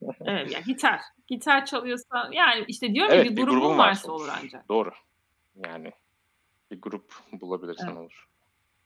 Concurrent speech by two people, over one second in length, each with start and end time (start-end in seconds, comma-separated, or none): 3.0-4.5